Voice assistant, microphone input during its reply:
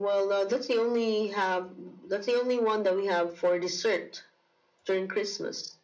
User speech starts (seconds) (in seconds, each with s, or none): none